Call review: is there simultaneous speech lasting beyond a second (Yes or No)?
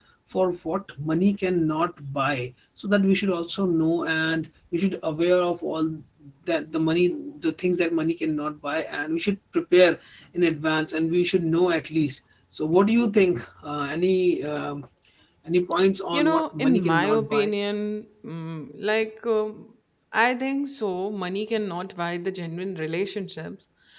Yes